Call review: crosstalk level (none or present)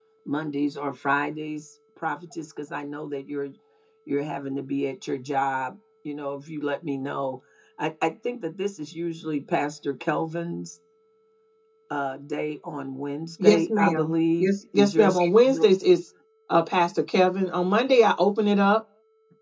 present